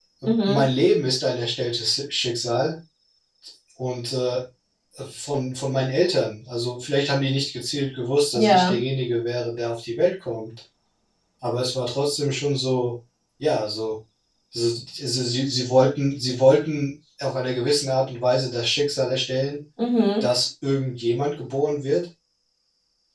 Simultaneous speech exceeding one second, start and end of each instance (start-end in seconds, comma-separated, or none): none